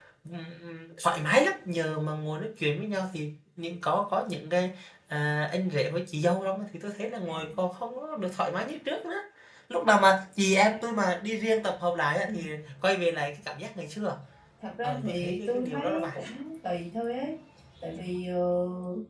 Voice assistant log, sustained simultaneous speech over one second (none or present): present